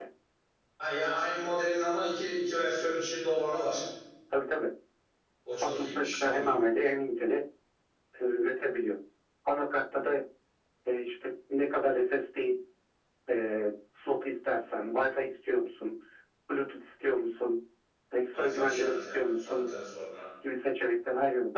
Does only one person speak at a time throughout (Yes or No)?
No